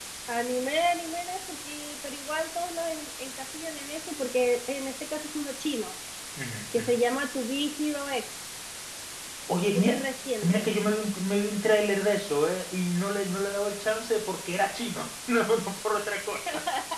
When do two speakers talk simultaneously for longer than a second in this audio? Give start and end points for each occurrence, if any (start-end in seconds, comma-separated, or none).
none